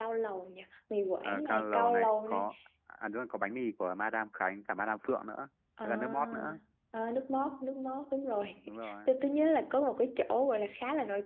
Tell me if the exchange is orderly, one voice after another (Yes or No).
No